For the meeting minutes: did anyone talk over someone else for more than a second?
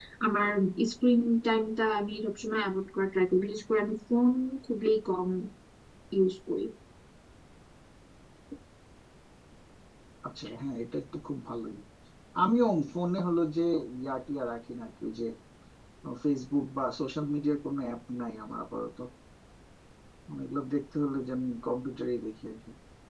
No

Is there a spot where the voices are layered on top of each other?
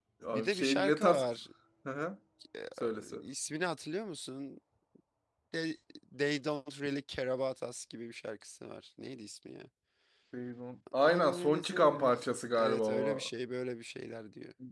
Yes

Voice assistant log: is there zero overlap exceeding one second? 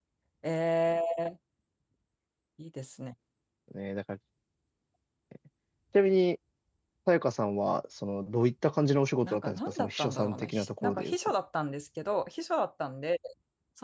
No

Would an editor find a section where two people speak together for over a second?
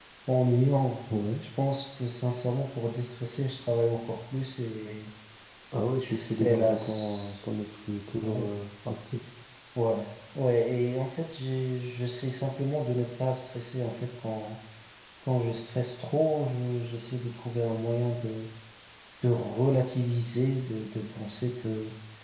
Yes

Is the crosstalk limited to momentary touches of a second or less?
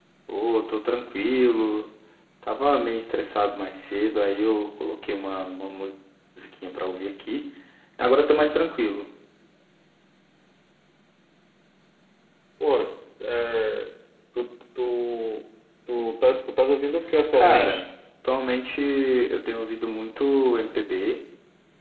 Yes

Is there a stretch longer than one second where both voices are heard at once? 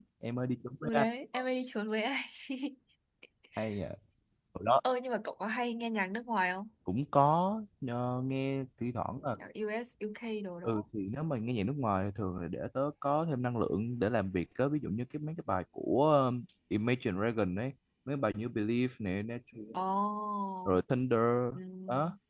No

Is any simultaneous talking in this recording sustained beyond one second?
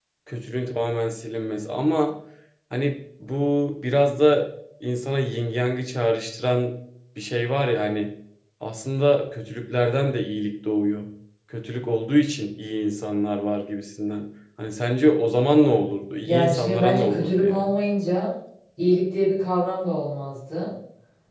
Yes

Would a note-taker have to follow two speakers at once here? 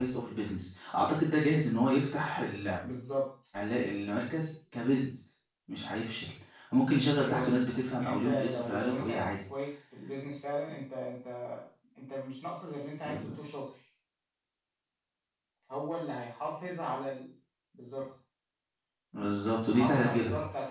Yes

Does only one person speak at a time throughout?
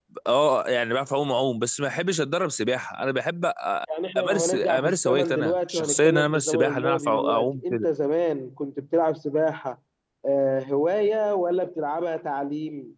No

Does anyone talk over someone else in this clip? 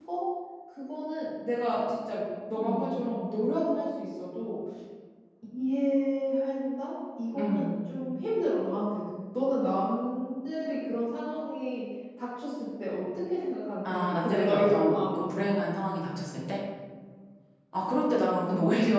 Yes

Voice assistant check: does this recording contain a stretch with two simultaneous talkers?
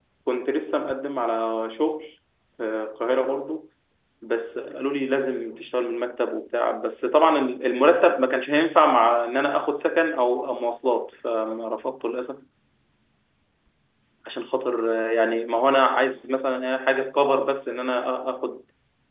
No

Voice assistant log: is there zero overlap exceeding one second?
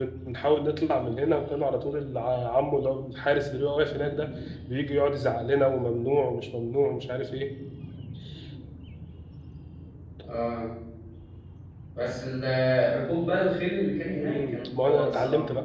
No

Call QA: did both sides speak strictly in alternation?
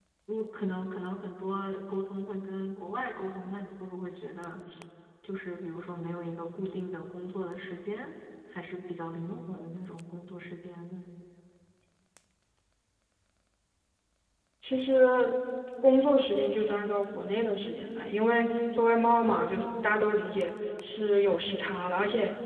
Yes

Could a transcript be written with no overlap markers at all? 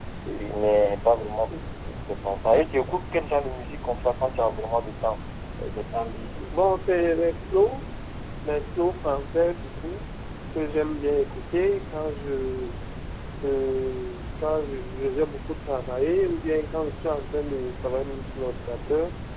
Yes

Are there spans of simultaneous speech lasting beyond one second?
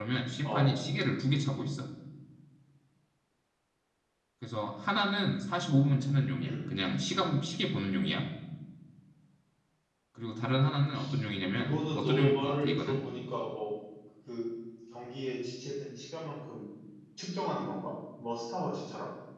Yes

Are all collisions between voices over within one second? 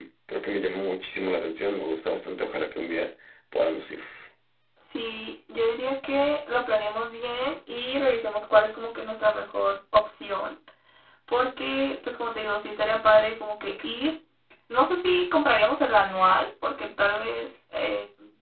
Yes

